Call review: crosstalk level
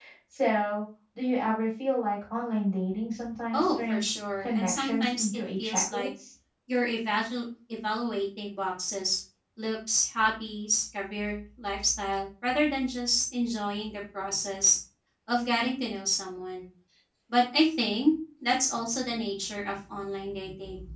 present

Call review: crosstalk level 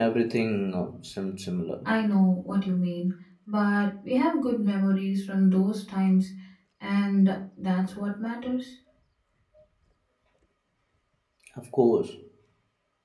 none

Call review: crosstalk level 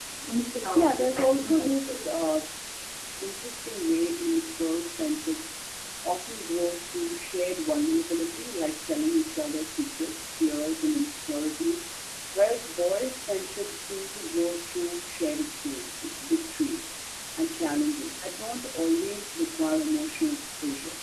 present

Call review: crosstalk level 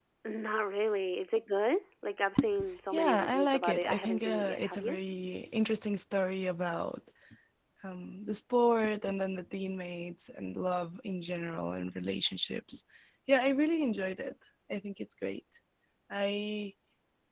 present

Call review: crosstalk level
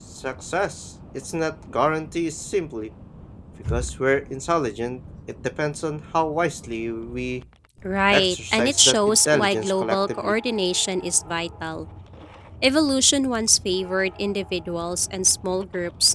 present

